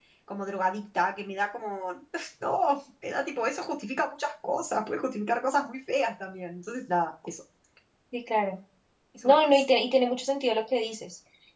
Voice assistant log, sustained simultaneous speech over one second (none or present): none